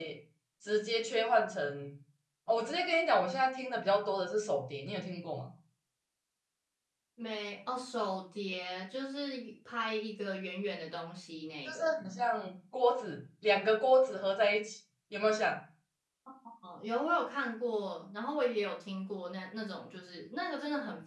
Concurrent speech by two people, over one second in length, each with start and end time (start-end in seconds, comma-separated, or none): none